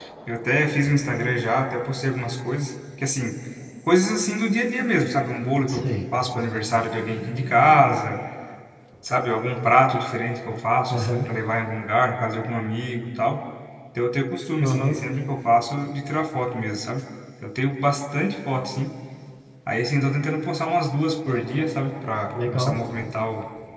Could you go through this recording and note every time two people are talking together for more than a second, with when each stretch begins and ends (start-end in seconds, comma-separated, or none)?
none